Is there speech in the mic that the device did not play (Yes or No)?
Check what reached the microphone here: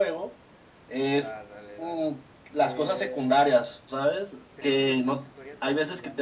Yes